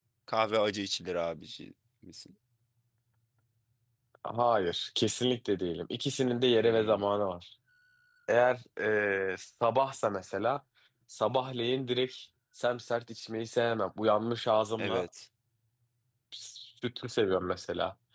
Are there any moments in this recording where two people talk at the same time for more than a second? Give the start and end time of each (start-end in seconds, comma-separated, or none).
none